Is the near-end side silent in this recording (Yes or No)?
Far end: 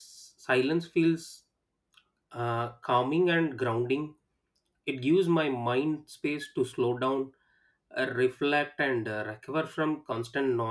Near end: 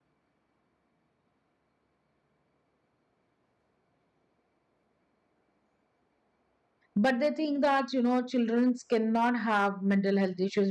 No